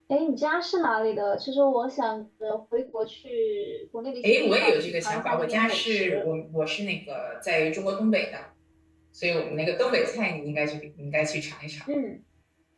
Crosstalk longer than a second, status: present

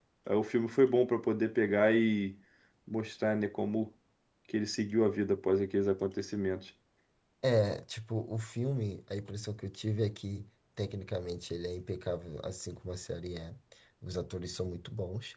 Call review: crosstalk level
none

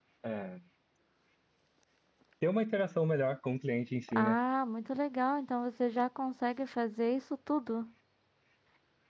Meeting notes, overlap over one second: none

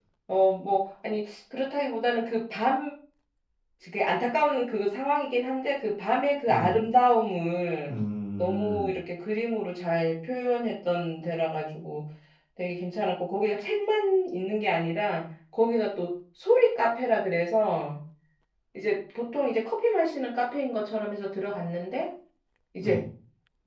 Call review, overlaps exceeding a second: none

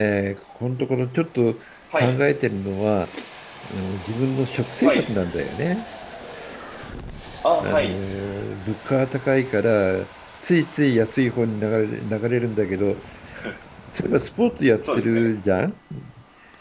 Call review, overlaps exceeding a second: none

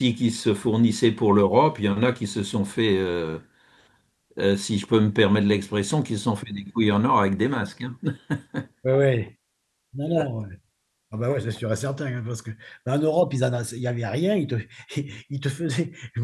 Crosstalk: none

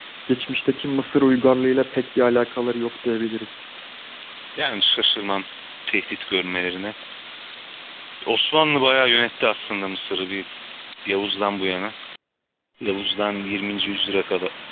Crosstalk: none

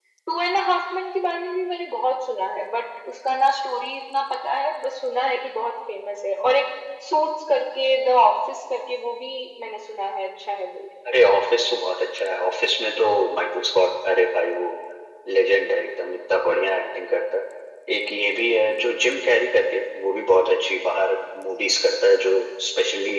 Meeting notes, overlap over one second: none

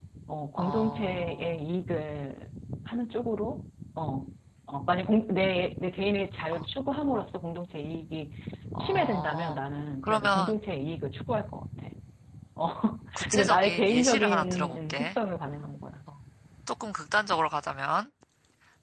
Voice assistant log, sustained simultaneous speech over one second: present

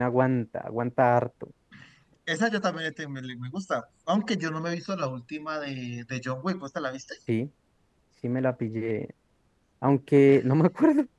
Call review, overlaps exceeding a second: none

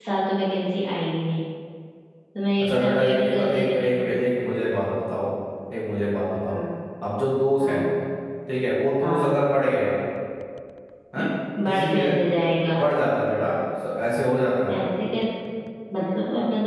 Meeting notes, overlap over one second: present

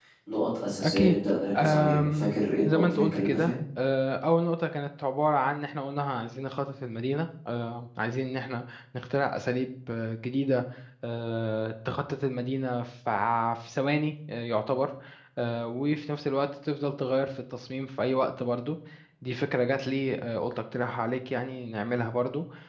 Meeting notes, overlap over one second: present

